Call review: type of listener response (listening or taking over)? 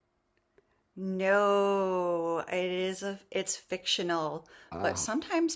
listening